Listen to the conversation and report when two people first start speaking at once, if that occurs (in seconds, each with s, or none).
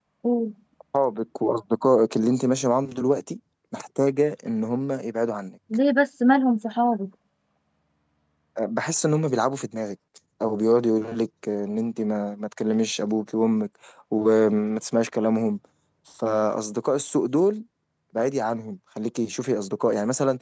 none